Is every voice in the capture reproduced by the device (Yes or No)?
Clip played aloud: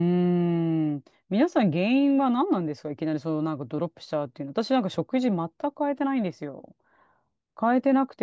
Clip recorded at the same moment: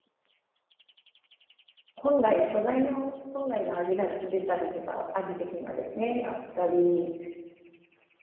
No